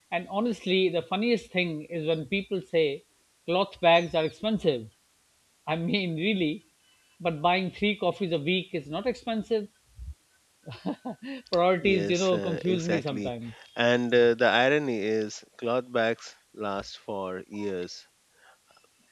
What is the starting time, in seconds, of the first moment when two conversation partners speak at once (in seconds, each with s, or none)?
11.8 s